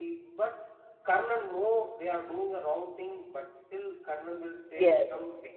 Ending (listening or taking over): listening